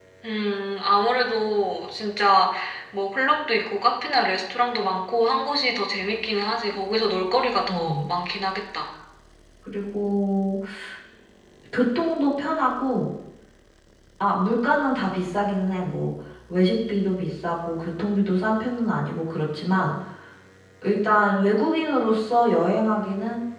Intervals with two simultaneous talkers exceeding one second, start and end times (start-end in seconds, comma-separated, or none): none